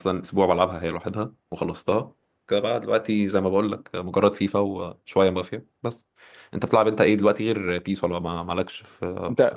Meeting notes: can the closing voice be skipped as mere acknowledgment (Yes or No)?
No